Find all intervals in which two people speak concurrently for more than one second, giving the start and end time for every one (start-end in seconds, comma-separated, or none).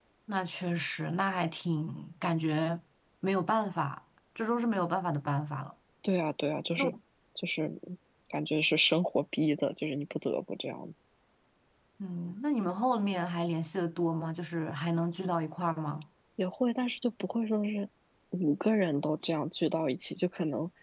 none